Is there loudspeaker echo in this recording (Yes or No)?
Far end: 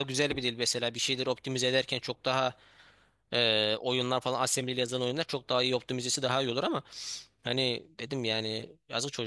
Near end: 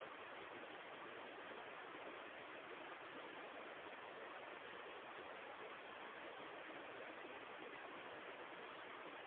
No